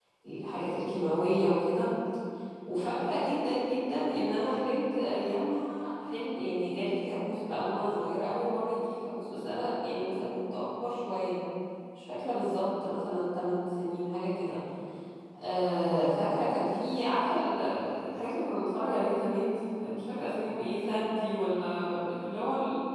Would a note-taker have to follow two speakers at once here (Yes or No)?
No